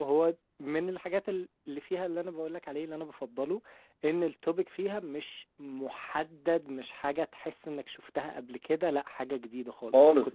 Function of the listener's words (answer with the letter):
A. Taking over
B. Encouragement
A